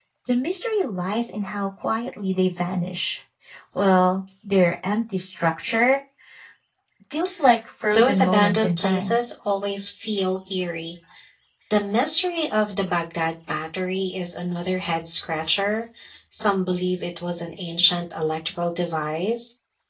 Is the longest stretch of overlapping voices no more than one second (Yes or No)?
No